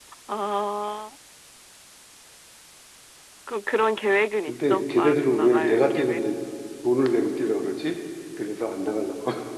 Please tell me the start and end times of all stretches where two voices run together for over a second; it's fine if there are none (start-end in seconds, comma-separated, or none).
4.4-6.2